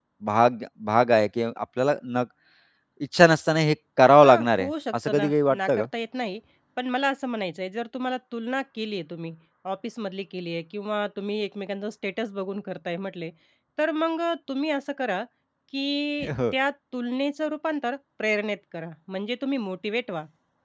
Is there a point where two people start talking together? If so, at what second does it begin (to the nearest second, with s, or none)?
4 s